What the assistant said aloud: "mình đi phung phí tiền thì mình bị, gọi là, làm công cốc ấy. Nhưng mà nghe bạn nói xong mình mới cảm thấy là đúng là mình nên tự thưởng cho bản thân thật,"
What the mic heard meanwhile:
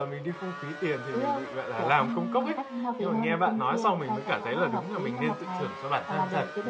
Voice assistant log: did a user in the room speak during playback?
Yes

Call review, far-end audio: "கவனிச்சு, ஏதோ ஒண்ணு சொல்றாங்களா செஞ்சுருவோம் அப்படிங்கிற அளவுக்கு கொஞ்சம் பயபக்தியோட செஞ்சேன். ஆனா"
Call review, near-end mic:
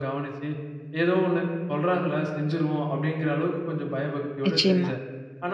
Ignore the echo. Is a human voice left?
Yes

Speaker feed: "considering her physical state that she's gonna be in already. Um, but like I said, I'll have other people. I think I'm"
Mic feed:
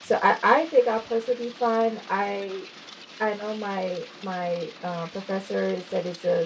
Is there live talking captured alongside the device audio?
Yes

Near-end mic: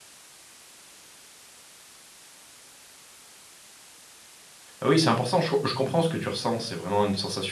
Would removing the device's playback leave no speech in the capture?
No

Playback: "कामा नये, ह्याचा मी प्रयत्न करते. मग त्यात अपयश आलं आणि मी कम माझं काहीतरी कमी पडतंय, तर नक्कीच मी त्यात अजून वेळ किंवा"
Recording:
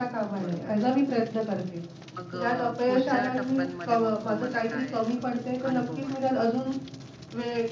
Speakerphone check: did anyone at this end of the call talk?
Yes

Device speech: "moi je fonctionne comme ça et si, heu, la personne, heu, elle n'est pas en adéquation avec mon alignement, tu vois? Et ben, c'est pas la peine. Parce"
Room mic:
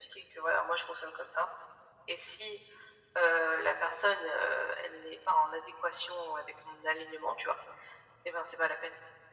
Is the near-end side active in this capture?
No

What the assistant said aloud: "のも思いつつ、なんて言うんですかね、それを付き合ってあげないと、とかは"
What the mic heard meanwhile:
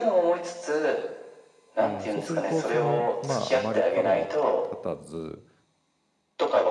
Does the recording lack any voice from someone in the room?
No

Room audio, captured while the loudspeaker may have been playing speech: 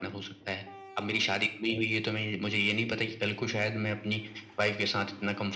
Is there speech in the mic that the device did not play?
No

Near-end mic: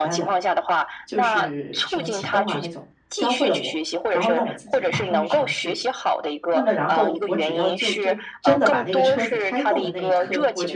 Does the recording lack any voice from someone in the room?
No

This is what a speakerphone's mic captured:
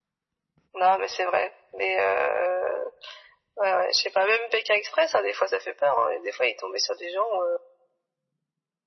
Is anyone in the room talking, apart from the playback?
No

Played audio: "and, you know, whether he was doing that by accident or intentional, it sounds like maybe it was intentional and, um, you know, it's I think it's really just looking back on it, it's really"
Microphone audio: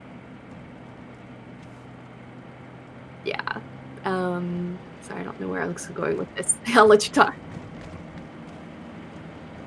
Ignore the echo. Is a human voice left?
Yes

